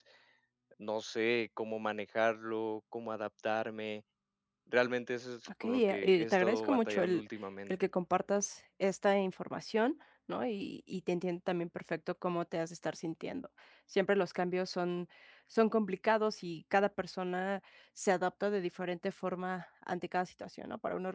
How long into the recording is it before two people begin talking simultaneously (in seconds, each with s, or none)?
5.4 s